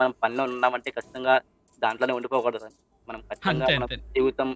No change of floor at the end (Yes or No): Yes